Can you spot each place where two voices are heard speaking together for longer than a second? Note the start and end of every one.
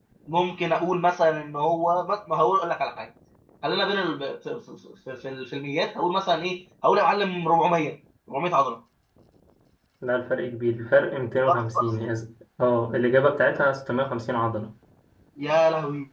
none

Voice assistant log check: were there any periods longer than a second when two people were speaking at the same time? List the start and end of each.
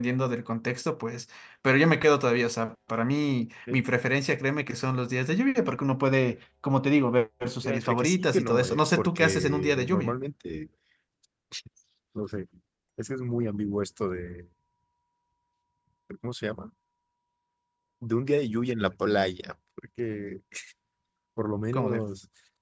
7.6-10.1

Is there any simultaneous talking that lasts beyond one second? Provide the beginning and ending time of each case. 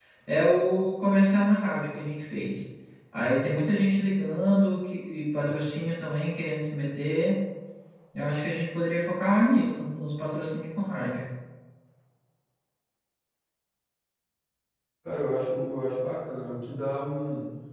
none

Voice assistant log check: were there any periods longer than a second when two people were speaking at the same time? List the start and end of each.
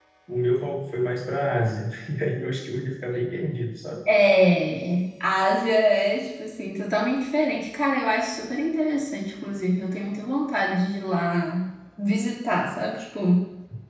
none

